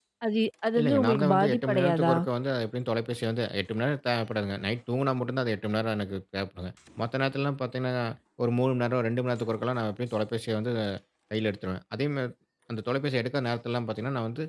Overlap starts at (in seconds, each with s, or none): 0.8 s